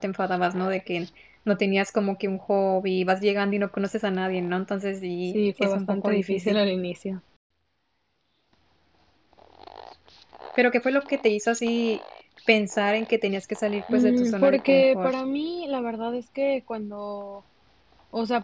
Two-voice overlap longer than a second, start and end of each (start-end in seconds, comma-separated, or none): 5.3-6.6, 13.9-15.1